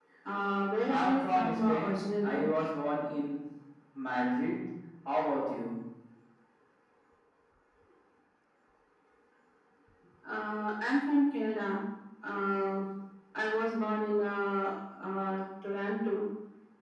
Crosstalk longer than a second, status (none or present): present